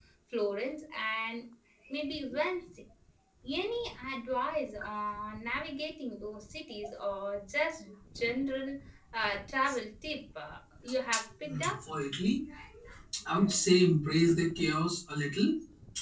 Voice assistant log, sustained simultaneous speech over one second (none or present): none